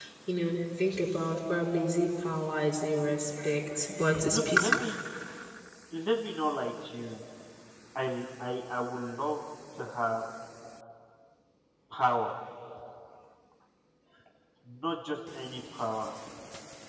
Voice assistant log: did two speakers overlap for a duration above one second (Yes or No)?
No